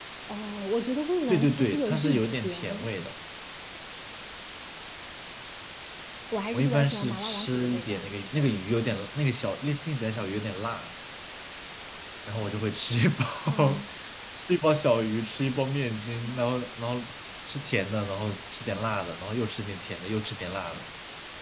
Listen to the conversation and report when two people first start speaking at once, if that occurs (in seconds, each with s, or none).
1.3 s